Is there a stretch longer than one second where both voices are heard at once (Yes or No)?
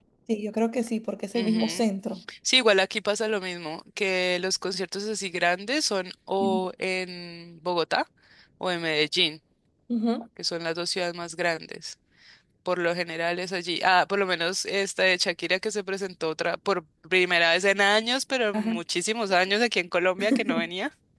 No